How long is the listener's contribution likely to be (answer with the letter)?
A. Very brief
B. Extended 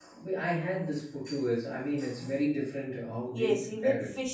B